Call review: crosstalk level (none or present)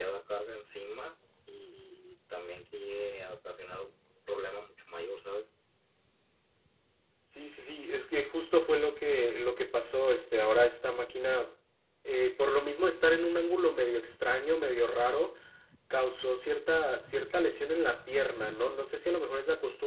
none